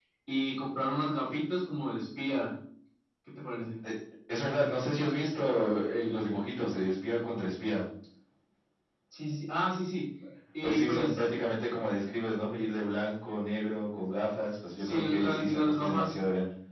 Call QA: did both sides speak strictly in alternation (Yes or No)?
No